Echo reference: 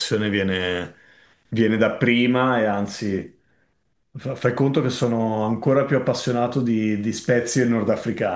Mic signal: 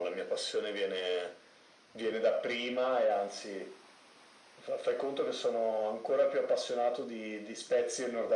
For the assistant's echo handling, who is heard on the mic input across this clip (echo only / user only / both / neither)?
echo only